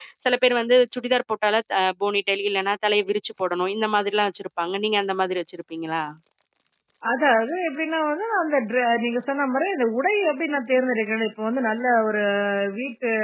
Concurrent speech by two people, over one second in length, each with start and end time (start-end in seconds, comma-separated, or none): none